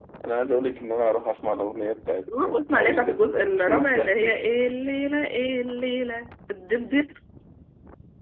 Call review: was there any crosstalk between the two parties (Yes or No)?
Yes